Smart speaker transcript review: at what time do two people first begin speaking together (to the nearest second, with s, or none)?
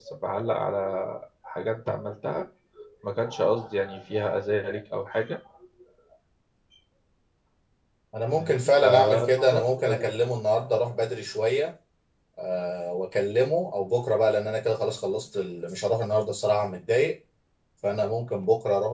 8 s